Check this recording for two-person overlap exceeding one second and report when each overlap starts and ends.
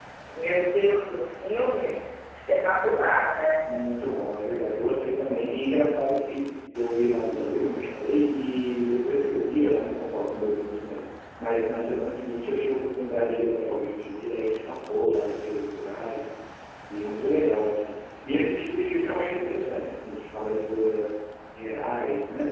none

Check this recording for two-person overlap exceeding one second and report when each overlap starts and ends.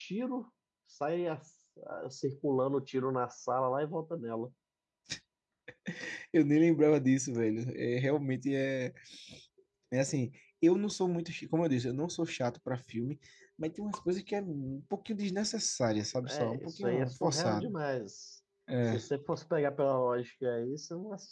16.3-17.7

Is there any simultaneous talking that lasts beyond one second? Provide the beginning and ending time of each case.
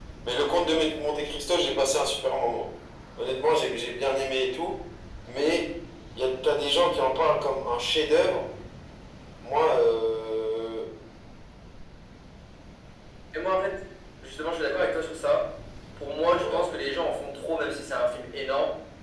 none

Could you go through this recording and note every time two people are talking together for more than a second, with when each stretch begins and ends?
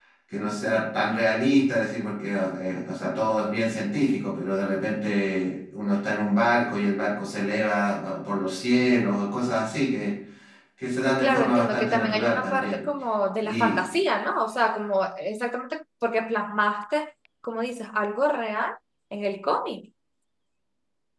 11.2-12.8

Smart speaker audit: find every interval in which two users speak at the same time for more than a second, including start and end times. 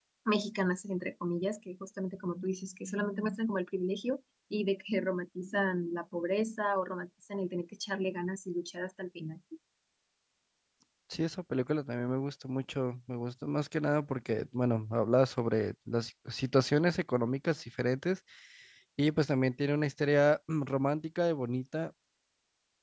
none

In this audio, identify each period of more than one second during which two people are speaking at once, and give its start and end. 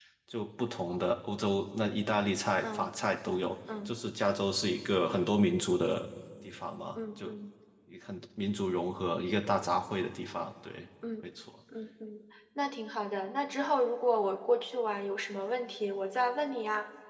none

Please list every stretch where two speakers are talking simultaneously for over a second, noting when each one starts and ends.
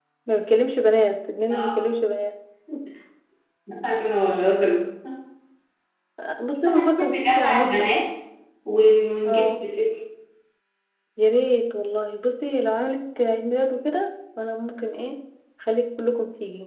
6.7-7.9

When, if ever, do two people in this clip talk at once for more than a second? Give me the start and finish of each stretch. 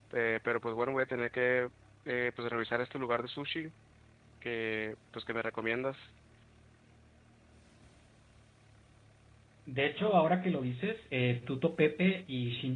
none

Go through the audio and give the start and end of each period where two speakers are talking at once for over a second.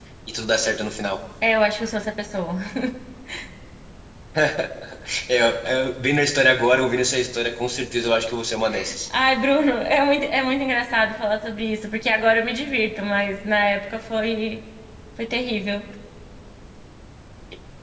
none

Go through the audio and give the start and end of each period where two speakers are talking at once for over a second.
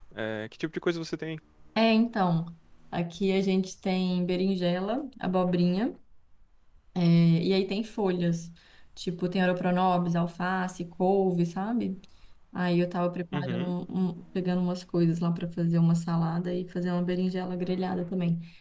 none

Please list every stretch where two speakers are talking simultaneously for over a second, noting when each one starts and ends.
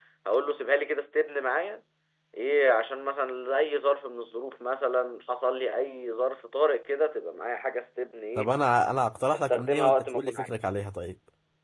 9.3-10.6

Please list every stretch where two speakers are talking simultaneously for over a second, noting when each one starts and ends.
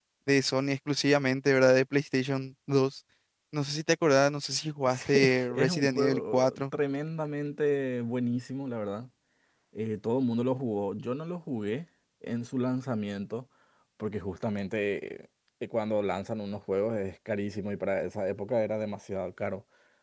4.9-6.6

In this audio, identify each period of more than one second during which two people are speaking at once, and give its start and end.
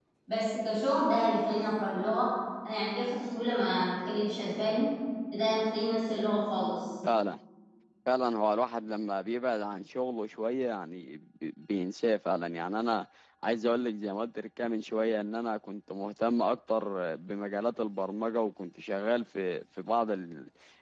none

